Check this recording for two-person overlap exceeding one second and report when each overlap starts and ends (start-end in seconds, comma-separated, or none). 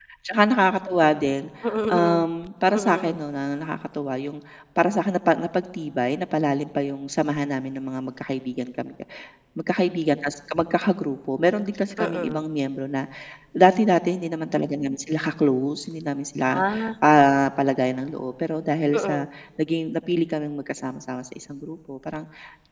none